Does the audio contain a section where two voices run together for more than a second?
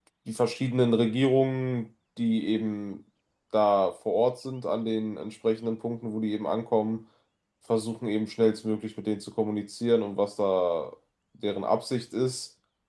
No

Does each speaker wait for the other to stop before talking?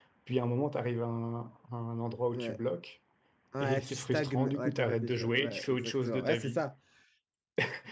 No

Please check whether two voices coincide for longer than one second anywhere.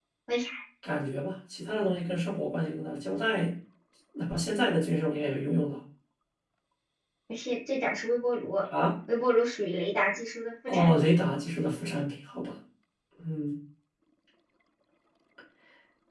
No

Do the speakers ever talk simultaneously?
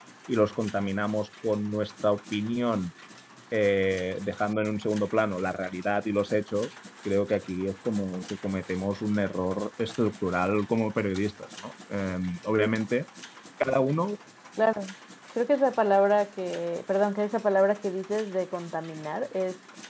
No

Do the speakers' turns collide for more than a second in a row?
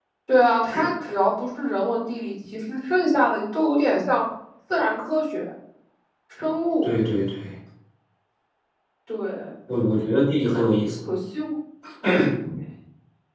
No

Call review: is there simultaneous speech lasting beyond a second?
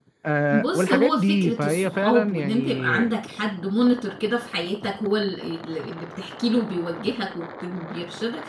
Yes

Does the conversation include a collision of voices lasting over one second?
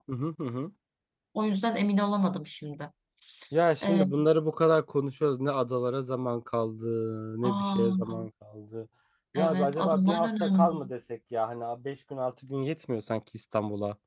Yes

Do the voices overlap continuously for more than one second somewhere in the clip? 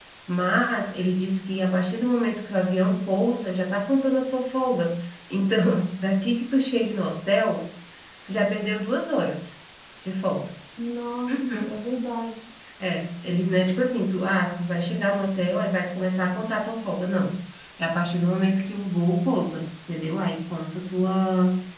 No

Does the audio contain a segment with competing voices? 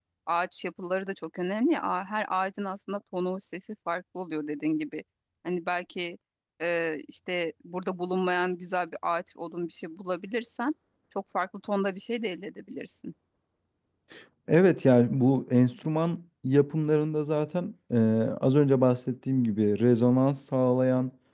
No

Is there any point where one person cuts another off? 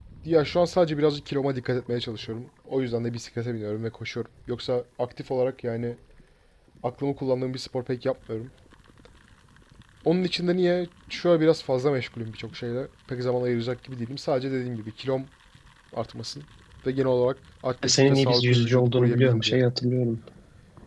Yes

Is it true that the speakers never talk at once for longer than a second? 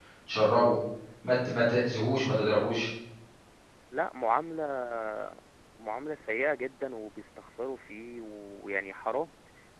Yes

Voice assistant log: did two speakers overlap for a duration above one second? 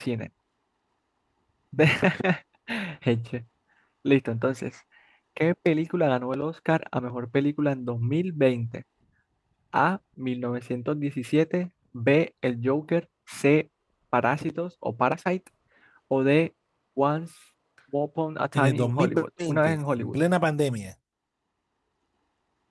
Yes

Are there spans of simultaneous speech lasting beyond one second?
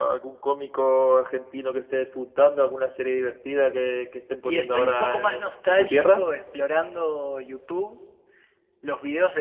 Yes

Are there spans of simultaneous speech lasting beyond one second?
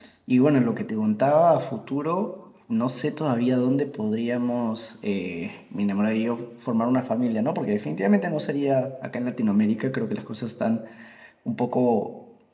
No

